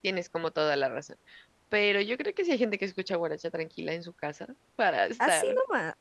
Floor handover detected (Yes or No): Yes